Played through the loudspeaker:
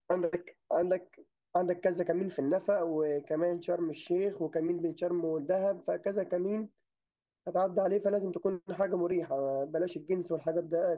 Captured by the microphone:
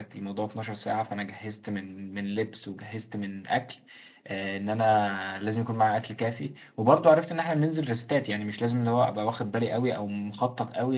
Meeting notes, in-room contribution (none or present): present